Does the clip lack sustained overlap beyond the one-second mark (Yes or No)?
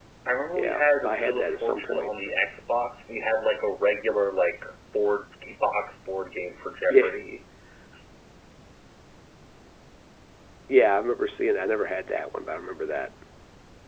No